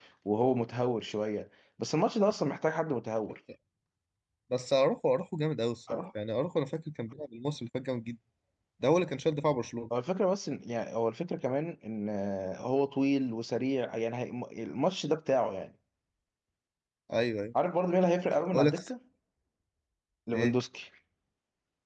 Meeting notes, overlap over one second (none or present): none